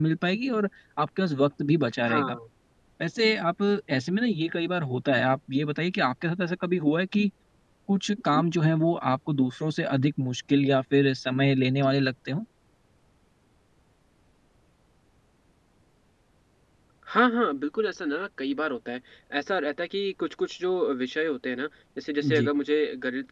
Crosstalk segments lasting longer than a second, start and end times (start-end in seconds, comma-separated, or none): none